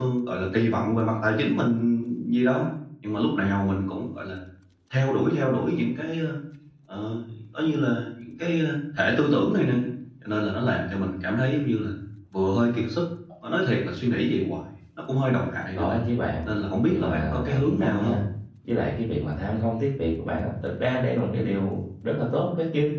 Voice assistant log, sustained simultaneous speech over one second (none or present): present